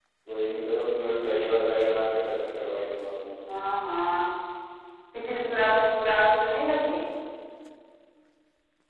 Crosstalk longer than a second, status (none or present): none